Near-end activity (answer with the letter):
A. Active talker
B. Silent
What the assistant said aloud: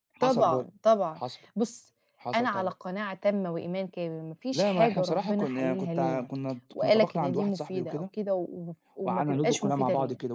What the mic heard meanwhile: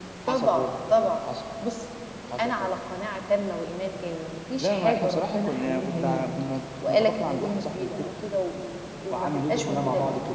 B